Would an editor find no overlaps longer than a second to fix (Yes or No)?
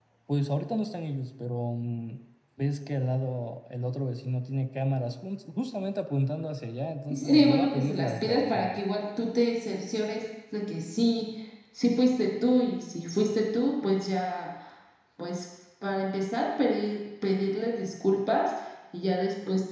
No